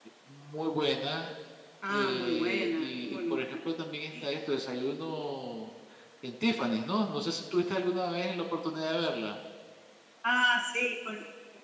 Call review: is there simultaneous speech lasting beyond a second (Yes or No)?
Yes